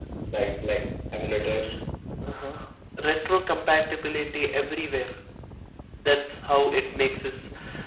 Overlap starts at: none

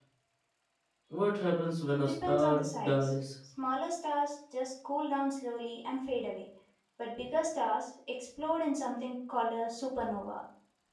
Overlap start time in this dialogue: 1.9 s

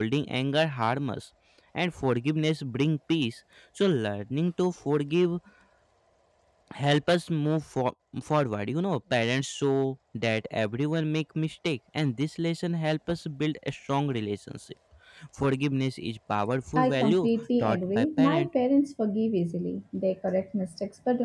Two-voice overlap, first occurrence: 16.8 s

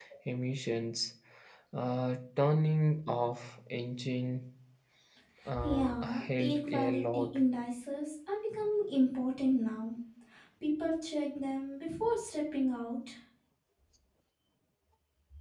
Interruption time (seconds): 5.6 s

